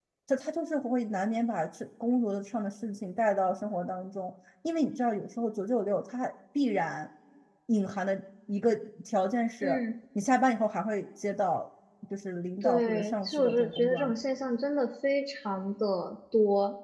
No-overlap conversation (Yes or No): No